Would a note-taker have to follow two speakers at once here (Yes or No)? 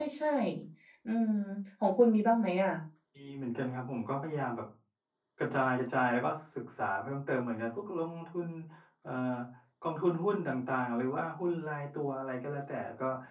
No